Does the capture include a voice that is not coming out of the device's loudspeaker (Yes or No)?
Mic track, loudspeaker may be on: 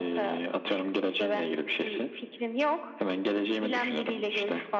No